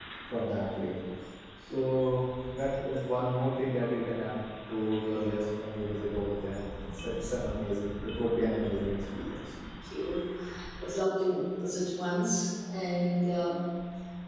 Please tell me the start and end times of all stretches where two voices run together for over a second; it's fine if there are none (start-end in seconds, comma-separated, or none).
none